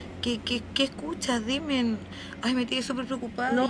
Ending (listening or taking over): taking over